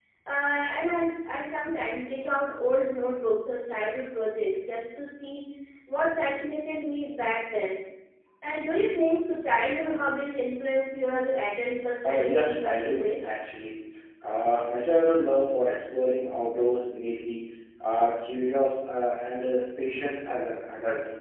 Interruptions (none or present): present